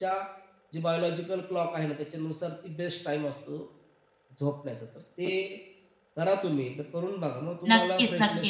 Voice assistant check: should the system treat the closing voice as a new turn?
Yes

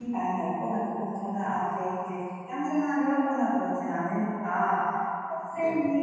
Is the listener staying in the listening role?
Yes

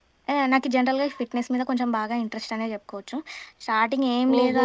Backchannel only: Yes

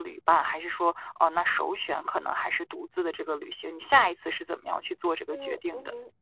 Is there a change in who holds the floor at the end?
Yes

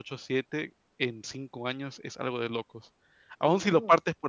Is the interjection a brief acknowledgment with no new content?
Yes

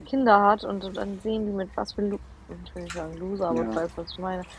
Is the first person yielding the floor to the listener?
No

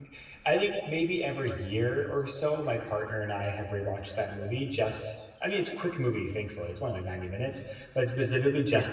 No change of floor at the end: Yes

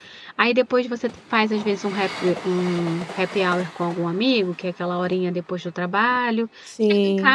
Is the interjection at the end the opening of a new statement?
No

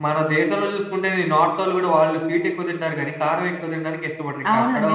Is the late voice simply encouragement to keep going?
No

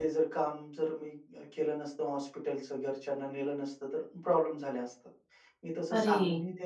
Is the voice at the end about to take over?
No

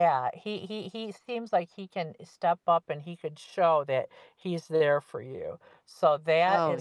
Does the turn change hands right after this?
No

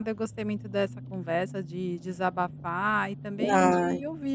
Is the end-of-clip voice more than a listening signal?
No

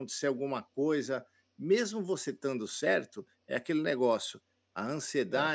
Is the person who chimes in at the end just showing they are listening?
Yes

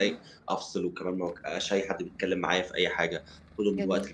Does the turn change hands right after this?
No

